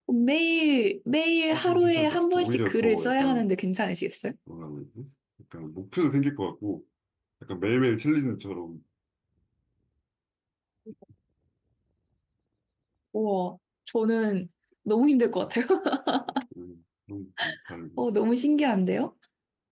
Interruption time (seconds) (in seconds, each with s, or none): 1.5 s